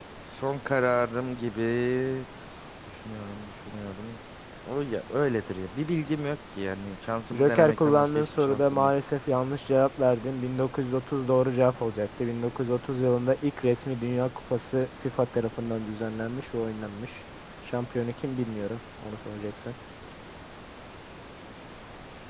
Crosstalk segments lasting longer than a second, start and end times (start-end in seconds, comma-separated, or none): 7.3-8.9